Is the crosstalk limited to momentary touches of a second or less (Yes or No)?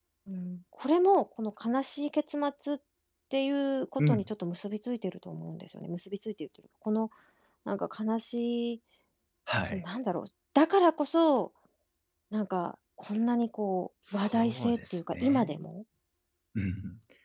No